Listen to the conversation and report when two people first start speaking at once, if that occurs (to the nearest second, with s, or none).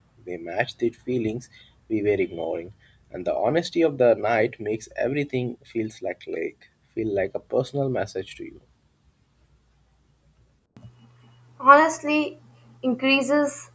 none